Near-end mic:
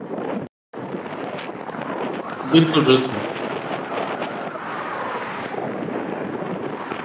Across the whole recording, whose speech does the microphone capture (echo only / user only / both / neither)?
user only